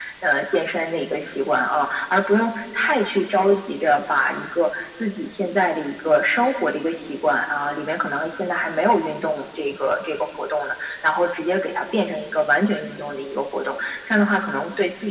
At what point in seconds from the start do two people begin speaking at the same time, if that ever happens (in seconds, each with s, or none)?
none